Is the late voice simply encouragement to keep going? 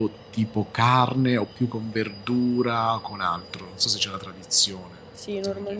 No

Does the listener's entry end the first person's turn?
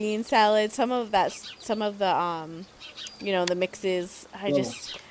No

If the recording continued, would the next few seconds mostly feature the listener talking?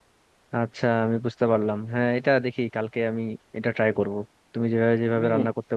No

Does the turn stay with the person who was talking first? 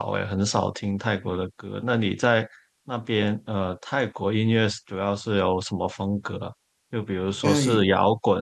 Yes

